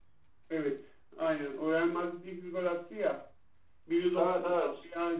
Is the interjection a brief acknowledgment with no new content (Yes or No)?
Yes